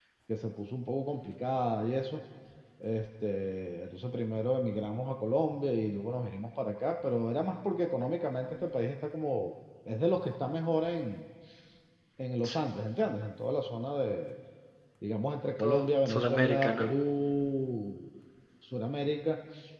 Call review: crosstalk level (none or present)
present